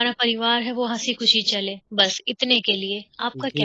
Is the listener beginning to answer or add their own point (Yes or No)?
Yes